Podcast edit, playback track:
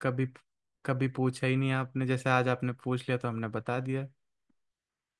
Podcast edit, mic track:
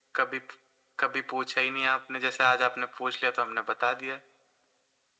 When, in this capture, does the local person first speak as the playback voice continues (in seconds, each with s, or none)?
none